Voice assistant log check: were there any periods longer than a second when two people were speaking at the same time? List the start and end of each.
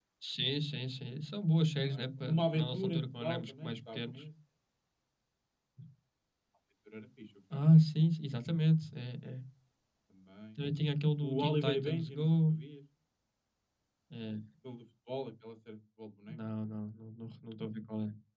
1.8-4.2, 11.2-12.5

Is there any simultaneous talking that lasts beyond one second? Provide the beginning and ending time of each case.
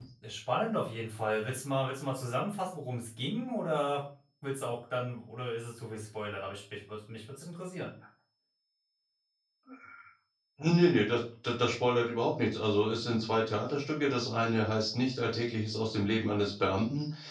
none

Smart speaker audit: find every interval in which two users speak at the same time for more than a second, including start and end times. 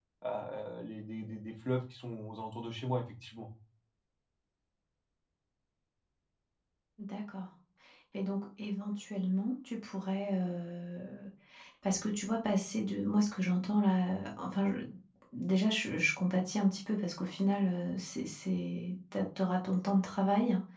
none

